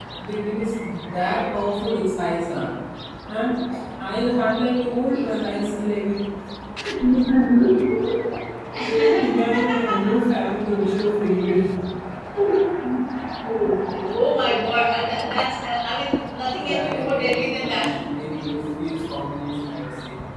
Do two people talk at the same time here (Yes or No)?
Yes